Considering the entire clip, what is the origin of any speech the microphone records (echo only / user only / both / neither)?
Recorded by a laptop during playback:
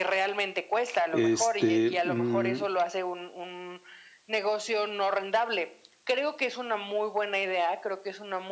both